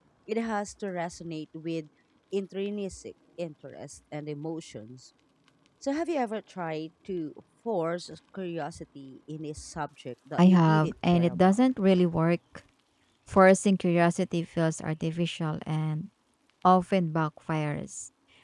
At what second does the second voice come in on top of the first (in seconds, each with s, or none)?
10.4 s